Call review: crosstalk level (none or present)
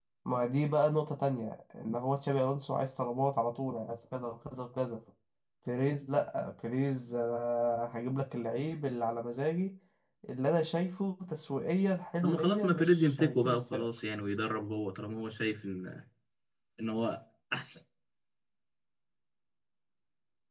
present